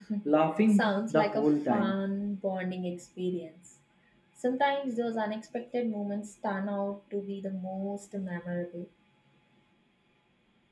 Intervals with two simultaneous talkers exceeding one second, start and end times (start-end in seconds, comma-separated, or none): 0.7-1.9